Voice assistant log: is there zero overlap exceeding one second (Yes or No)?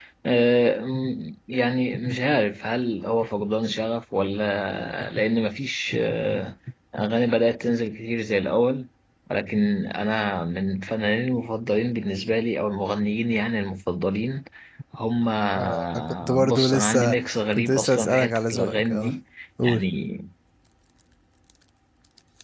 No